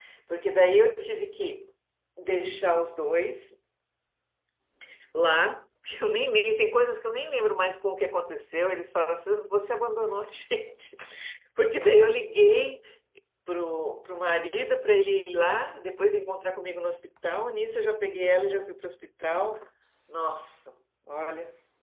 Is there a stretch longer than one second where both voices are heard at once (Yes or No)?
No